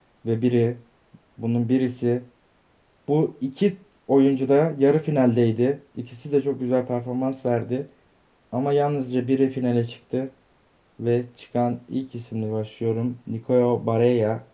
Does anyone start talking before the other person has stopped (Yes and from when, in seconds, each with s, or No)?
No